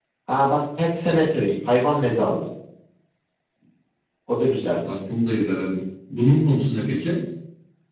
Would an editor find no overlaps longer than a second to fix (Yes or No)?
Yes